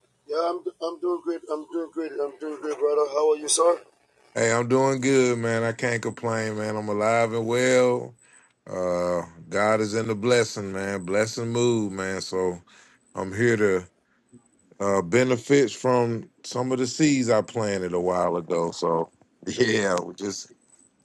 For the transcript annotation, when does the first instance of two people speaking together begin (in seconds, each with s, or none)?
none